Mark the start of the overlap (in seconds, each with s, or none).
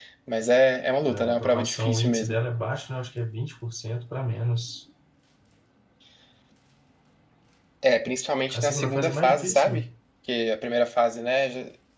1.1 s